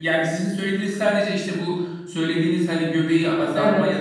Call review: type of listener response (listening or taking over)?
listening